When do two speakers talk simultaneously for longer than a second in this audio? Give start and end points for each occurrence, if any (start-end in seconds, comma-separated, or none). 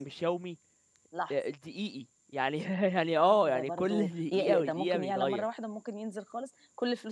3.2-5.4